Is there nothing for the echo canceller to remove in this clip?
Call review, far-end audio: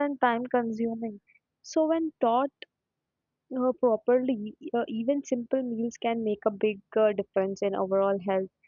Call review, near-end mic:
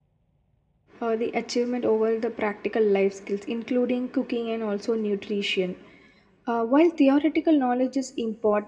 Yes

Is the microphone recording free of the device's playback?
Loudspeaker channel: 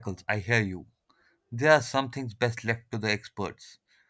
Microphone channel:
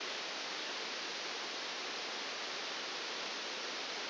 Yes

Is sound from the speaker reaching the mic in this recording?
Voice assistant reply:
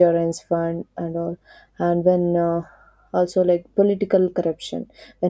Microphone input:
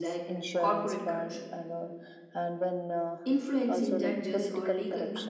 Yes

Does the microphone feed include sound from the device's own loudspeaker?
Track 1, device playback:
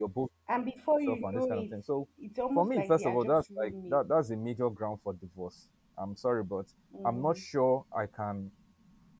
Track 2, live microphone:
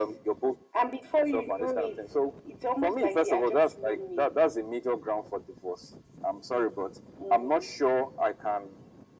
Yes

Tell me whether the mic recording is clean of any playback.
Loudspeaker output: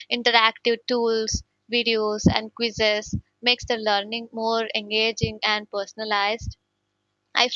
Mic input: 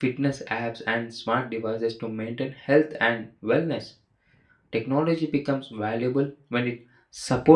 Yes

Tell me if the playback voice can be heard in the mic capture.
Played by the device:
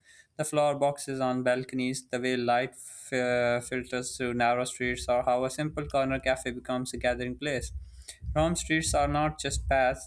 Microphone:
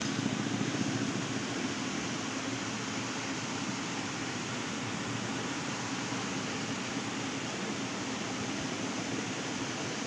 No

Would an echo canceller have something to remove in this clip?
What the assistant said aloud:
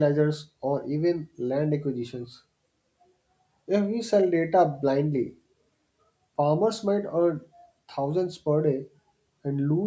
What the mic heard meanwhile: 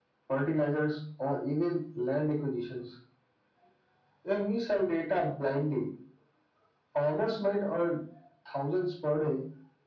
Yes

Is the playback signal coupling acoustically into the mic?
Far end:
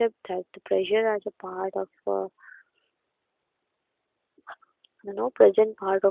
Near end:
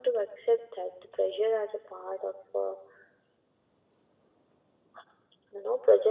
Yes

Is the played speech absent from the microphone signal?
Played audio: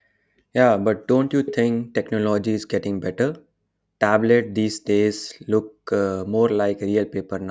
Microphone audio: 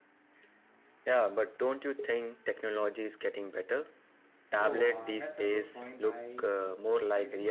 No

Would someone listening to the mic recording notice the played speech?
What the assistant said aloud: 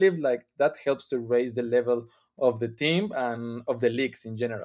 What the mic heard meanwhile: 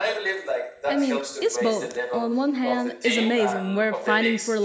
Yes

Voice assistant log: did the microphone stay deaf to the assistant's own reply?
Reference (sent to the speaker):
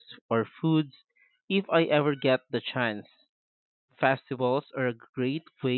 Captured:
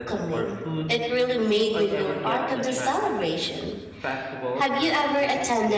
No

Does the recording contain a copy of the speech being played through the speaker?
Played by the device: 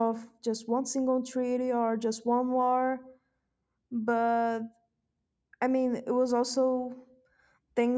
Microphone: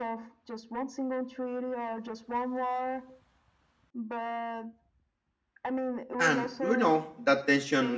Yes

